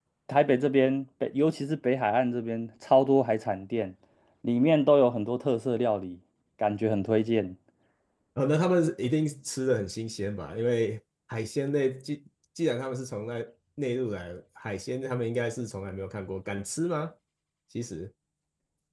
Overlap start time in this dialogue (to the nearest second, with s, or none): none